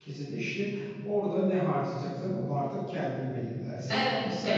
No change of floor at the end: Yes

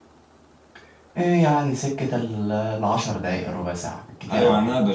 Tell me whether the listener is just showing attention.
No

